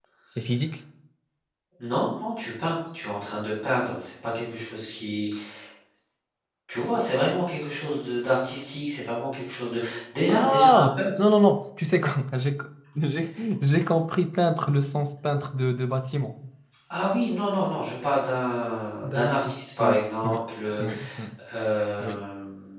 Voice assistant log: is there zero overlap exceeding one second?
No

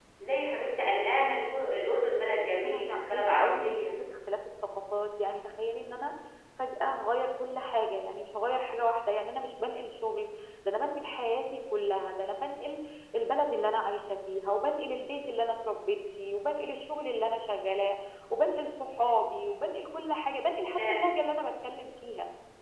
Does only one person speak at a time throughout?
No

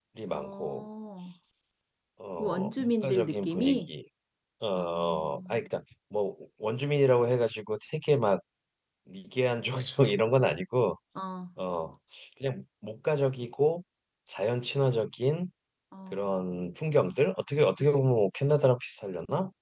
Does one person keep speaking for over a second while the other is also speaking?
Yes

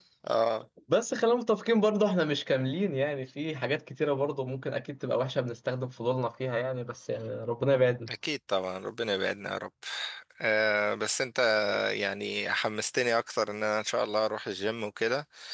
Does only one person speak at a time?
Yes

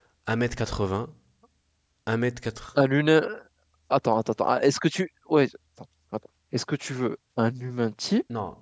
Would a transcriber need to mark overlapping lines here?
No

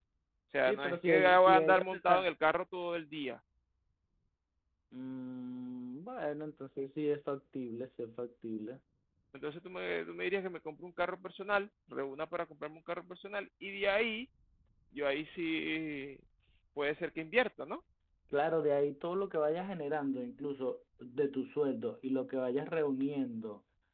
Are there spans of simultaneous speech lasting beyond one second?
Yes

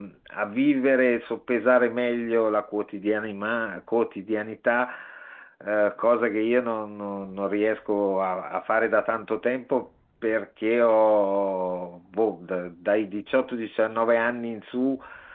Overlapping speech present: No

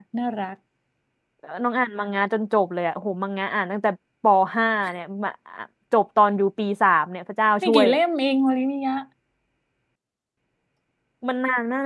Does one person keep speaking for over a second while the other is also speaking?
No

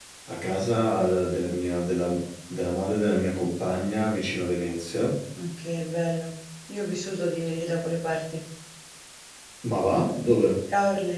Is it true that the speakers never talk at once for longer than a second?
Yes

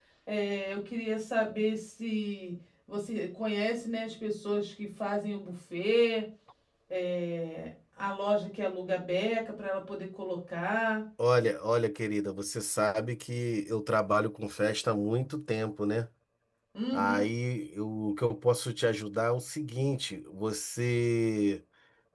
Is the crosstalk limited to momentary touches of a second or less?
Yes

